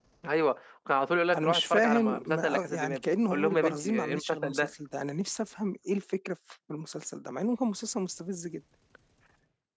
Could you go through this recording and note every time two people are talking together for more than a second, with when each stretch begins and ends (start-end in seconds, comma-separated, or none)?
1.4-4.7